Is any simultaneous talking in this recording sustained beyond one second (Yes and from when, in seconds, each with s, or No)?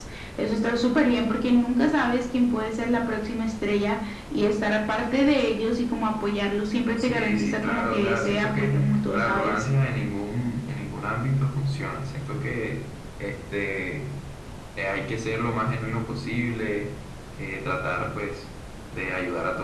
Yes, from 7.0 s